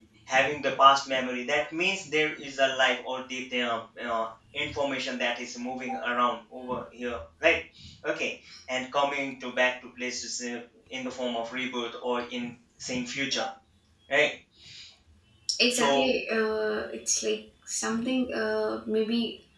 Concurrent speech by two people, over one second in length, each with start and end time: none

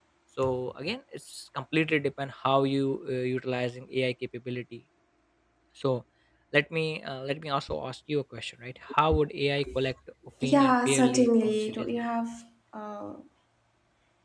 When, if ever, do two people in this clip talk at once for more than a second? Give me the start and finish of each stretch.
10.5-12.0

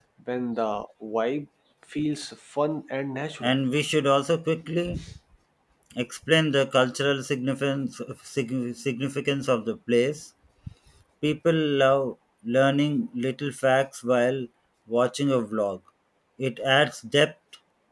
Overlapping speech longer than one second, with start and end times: none

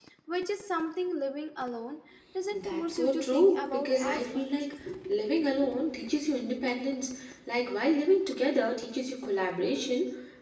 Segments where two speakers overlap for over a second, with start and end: 2.5-4.7

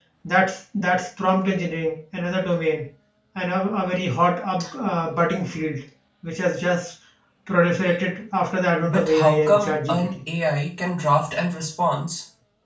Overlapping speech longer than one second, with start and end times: 8.8-10.1

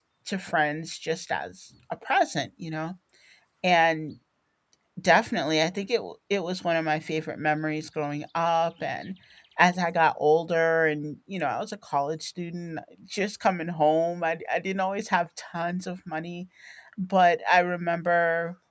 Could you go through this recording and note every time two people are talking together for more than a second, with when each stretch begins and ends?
none

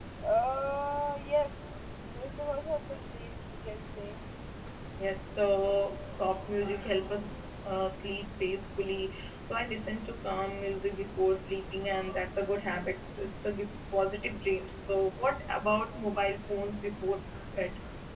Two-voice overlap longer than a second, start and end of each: none

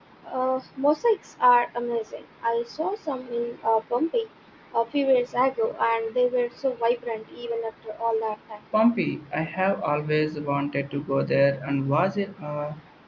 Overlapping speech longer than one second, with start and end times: none

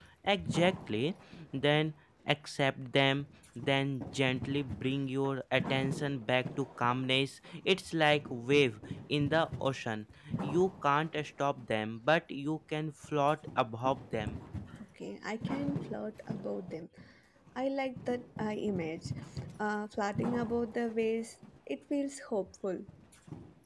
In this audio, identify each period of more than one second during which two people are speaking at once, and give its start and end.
none

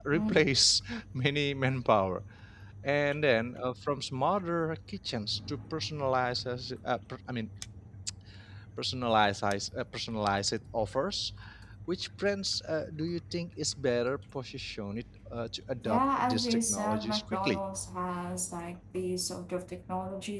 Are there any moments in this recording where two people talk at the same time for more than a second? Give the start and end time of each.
15.8-17.6

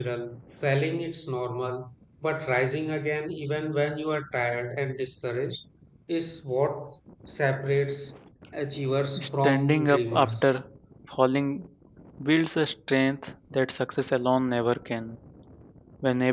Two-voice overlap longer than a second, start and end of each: 9.2-10.5

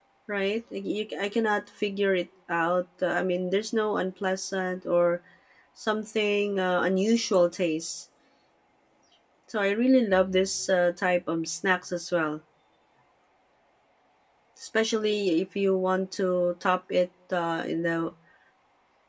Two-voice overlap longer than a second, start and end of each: none

